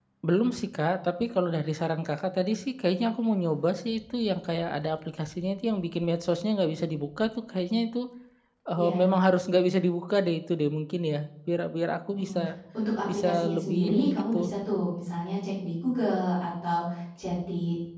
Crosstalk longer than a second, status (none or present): present